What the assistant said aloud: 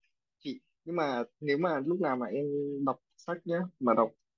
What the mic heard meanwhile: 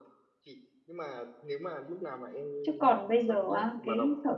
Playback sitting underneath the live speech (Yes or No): Yes